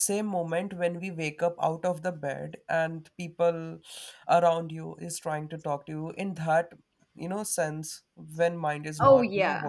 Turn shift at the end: Yes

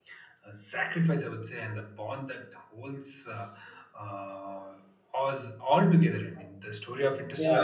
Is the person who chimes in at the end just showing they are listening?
No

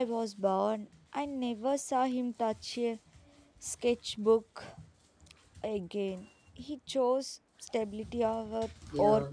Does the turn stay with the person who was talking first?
No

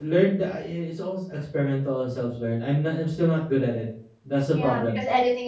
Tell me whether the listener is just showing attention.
No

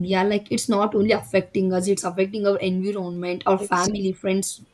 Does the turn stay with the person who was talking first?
Yes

